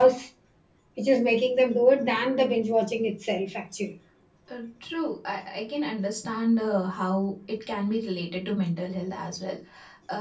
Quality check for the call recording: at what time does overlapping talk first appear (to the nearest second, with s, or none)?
none